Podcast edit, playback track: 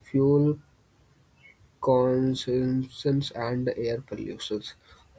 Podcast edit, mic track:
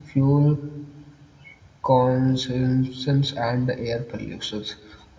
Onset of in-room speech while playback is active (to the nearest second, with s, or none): none